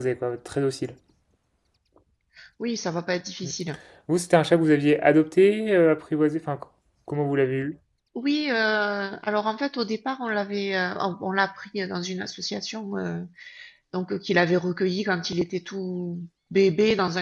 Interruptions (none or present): none